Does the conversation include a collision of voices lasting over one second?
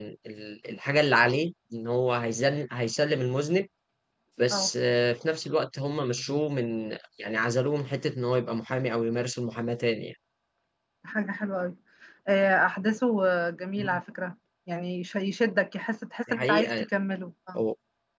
No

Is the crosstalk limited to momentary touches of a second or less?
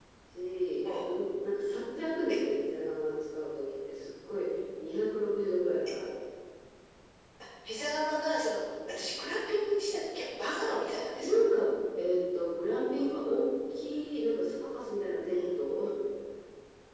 Yes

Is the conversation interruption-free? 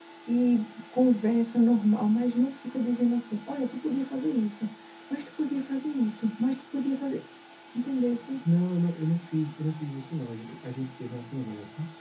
Yes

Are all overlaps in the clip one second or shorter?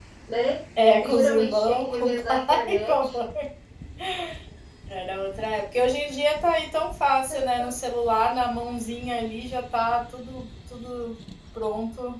No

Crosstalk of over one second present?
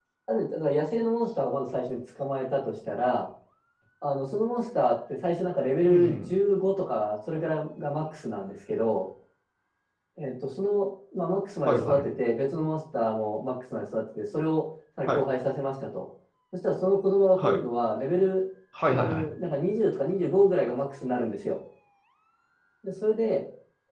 No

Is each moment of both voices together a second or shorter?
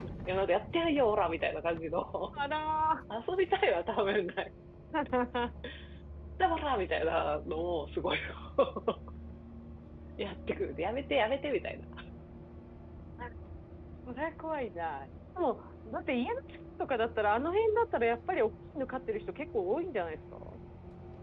Yes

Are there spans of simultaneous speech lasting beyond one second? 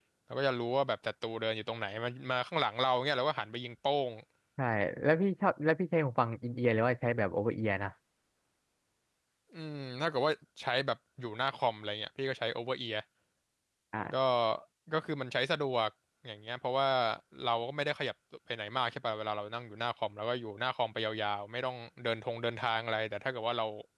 No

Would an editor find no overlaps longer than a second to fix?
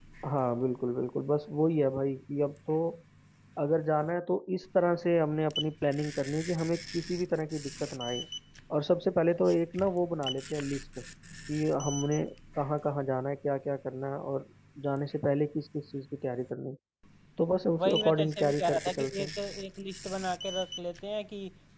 No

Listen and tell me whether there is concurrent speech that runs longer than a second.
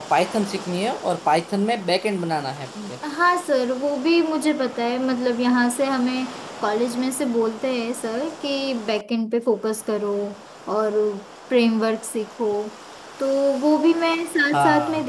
No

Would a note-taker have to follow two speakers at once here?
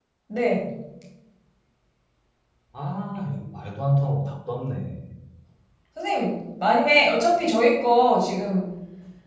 No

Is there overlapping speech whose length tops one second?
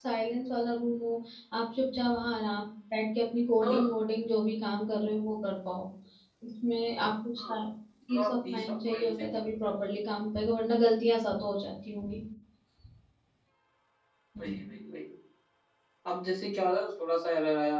Yes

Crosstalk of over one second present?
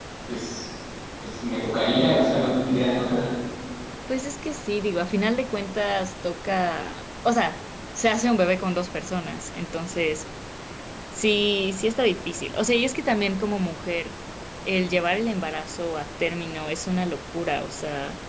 No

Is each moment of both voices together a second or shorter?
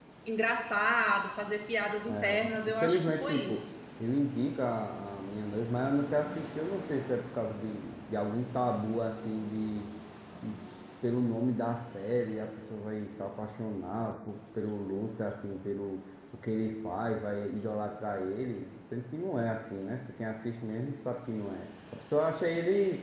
No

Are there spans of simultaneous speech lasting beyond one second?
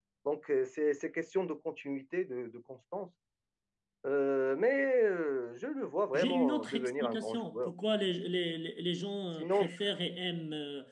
Yes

